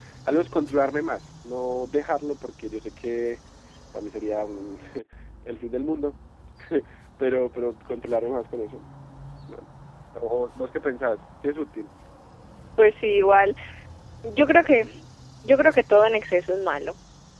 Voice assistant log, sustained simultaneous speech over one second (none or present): none